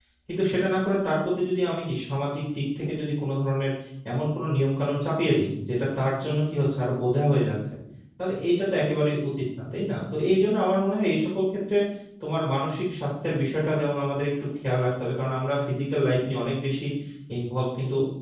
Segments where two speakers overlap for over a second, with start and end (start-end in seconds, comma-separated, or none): none